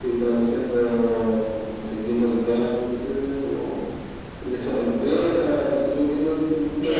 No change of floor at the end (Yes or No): No